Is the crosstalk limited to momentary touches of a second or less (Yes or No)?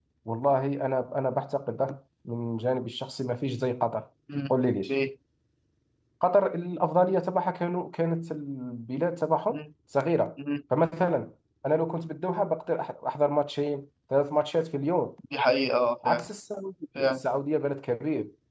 Yes